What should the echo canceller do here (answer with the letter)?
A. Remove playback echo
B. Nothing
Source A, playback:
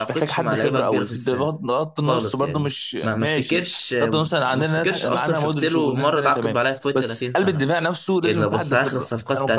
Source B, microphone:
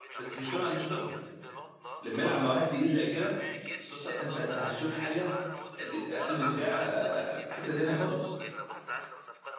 A